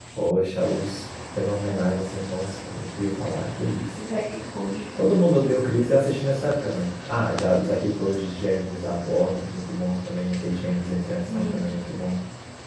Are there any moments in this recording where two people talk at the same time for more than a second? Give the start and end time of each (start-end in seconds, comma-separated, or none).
none